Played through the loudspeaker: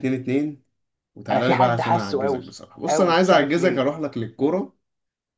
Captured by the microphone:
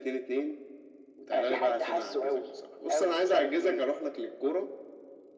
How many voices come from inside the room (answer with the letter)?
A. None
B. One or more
A